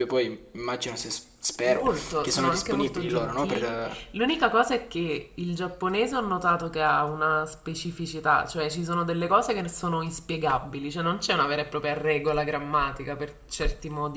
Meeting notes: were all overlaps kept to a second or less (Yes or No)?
No